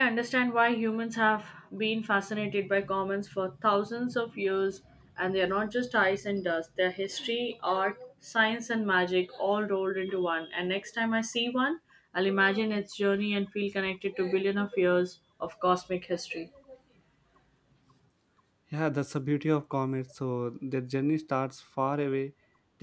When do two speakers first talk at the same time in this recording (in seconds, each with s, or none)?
none